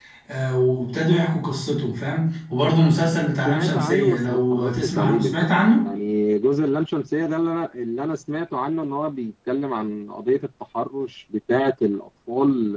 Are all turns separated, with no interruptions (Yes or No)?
No